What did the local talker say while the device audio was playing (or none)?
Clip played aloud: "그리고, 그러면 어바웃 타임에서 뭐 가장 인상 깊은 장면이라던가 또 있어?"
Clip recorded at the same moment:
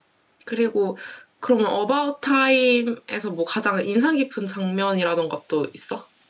none